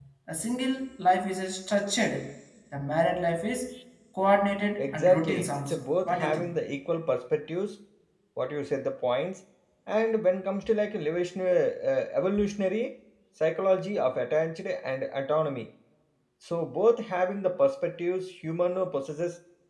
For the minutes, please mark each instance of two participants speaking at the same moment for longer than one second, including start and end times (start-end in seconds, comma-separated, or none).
4.8-6.5